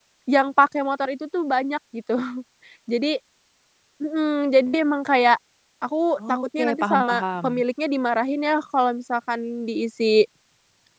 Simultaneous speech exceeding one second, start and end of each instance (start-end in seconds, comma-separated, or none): 6.2-7.6